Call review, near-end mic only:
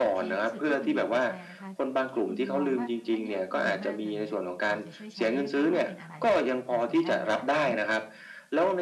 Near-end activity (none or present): present